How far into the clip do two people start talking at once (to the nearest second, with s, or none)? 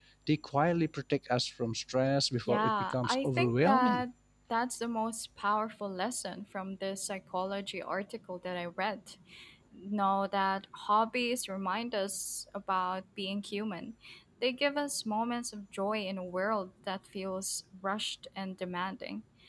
2 s